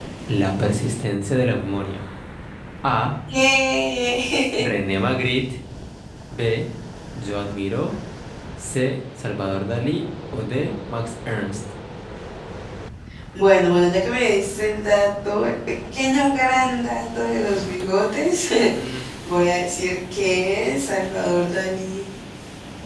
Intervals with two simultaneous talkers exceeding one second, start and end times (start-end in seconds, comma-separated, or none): none